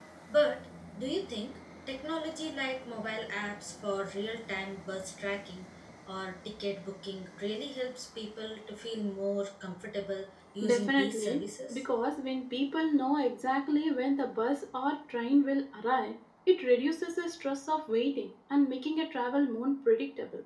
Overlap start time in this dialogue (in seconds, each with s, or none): 10.6 s